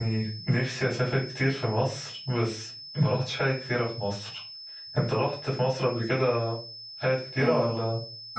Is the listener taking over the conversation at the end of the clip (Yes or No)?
Yes